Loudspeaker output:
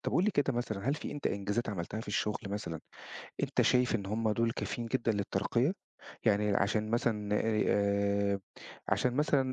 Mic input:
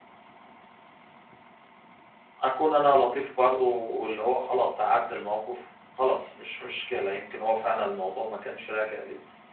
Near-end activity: present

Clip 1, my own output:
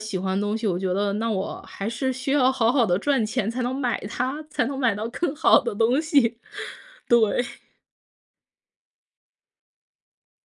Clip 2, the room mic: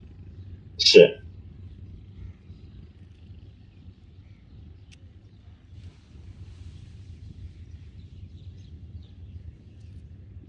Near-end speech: present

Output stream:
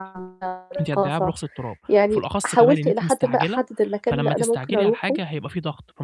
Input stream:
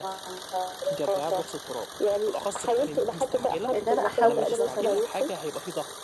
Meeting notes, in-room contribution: present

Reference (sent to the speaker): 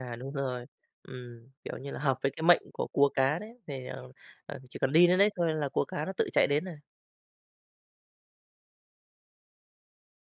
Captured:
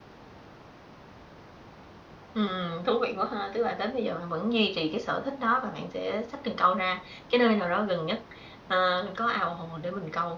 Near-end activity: present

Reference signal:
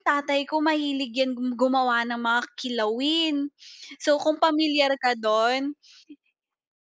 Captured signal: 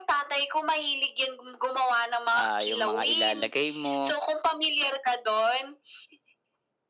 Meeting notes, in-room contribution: present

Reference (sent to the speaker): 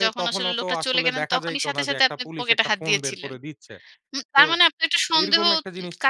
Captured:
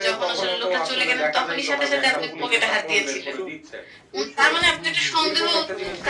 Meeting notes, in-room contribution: present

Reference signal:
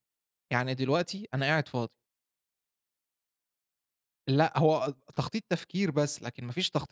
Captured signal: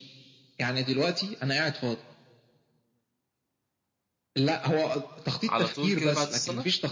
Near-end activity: present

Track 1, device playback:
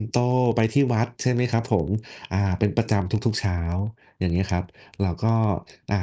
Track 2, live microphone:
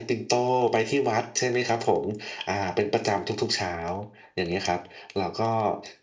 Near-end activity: none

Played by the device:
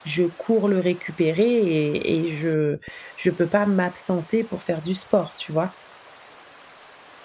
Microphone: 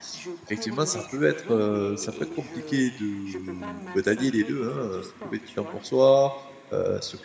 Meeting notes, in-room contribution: present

